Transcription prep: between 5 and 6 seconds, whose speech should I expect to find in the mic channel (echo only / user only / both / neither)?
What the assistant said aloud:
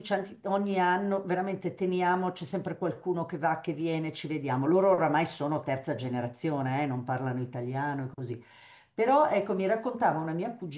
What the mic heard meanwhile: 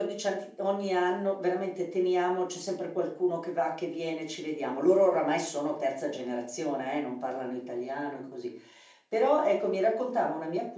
echo only